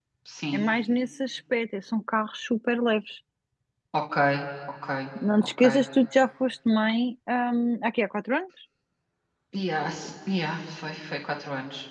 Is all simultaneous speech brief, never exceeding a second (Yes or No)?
Yes